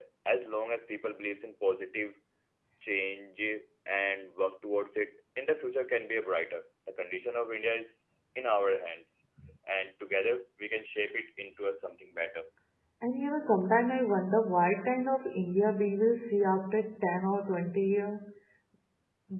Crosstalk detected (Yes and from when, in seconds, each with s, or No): No